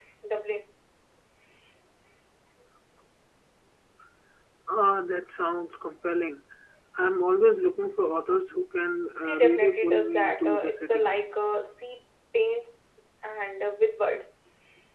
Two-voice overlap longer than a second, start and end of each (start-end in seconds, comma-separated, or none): 9.2-11.1